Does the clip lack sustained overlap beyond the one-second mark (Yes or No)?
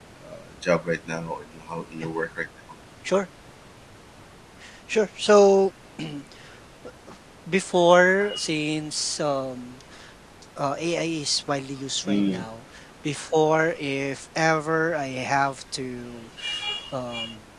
Yes